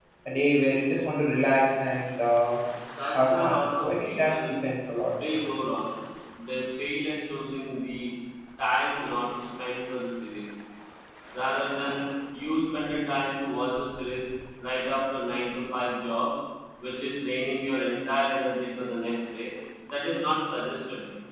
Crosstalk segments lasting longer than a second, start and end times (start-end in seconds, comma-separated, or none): 3.1-4.5